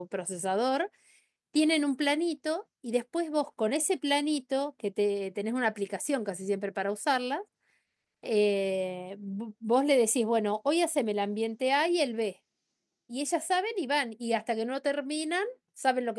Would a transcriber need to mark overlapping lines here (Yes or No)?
No